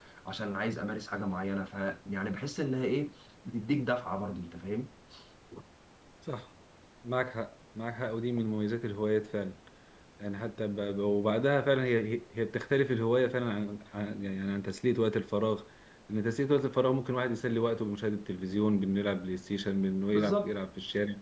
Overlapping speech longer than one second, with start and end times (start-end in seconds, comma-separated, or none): none